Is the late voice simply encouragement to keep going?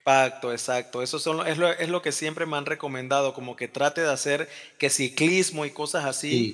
Yes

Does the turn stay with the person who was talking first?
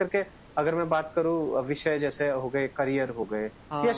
Yes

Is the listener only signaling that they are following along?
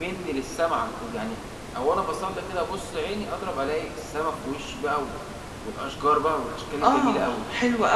No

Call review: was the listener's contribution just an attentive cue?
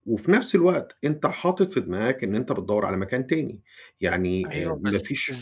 No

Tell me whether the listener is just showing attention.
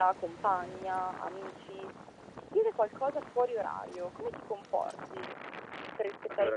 Yes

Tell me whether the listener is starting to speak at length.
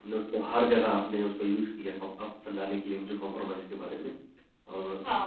Yes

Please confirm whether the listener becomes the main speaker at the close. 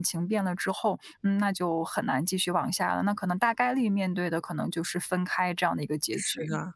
Yes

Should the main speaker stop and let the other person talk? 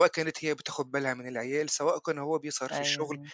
No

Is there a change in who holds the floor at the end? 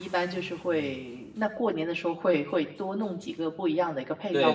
Yes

